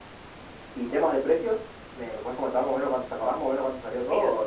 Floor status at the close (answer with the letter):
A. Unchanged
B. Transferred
B